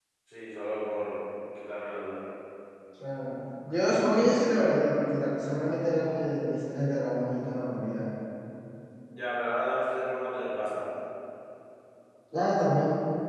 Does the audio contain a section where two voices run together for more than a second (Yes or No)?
No